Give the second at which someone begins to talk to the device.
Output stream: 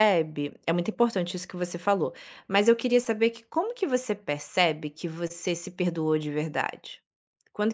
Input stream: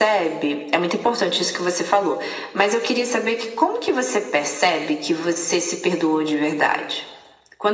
none

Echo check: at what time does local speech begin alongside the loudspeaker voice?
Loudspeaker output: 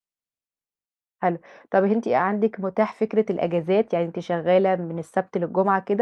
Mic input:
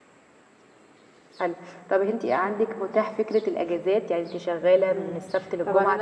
4.9 s

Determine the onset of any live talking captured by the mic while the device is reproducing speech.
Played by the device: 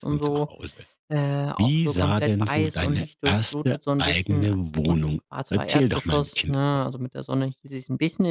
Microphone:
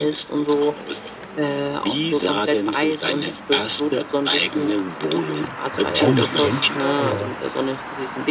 5.7 s

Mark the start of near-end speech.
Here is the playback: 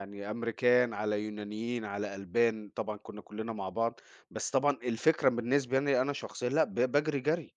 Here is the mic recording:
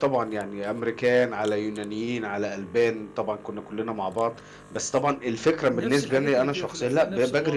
5.7 s

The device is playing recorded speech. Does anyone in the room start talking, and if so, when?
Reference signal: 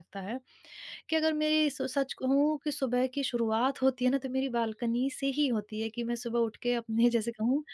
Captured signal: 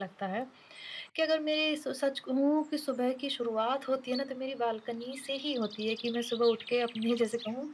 none

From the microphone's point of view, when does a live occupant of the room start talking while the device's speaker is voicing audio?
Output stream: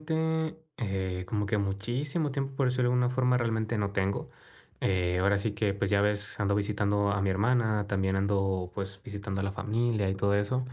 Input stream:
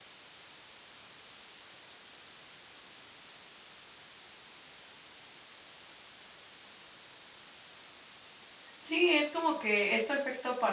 8.8 s

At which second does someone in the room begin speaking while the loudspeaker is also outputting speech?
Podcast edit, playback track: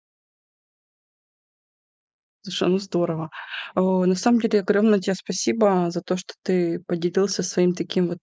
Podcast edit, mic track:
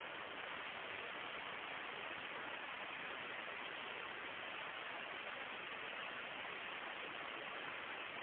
none

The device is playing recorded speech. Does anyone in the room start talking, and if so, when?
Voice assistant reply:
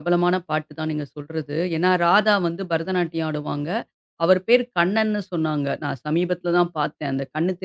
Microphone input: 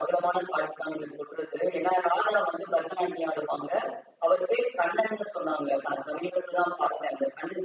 none

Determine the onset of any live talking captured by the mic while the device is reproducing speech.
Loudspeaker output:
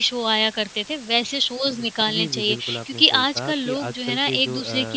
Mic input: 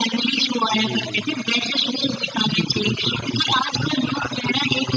0.7 s

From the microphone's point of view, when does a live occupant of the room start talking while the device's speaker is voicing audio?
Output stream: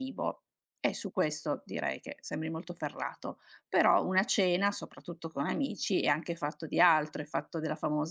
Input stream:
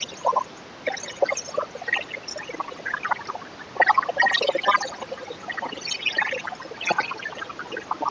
none

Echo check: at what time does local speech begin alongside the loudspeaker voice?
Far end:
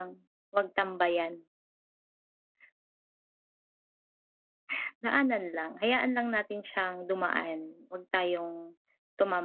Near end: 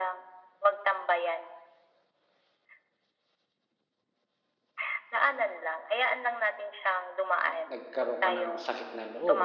7.5 s

